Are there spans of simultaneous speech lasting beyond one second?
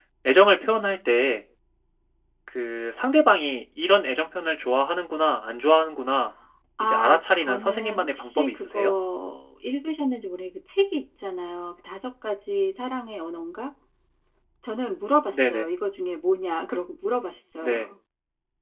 Yes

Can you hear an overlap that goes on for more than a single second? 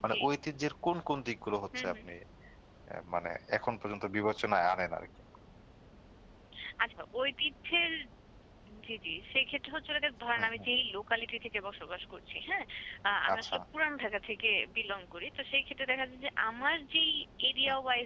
No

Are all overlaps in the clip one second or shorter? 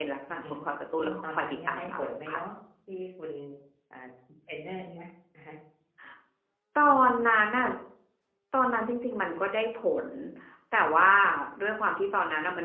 No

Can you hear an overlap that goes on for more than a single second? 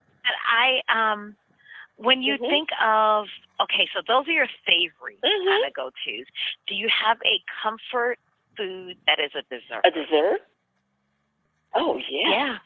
No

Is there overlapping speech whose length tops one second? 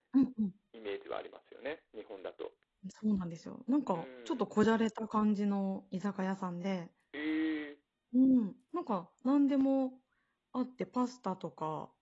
No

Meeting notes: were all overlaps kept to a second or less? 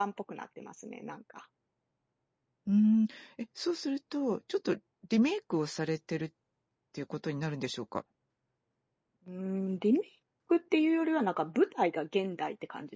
Yes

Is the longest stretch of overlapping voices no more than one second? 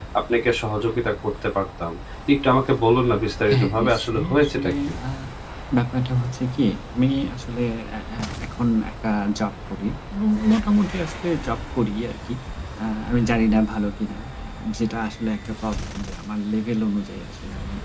No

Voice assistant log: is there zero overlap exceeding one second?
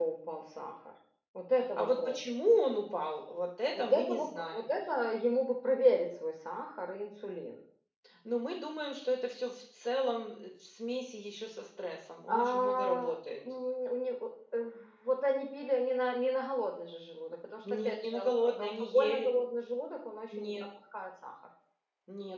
No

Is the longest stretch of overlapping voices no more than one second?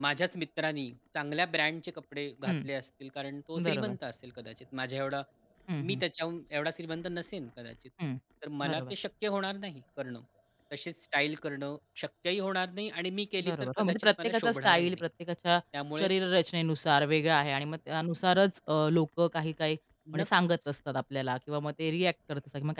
No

